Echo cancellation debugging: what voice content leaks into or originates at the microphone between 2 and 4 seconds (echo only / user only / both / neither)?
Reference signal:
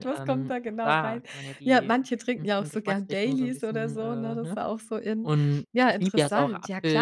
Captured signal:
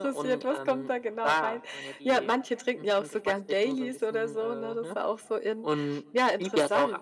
echo only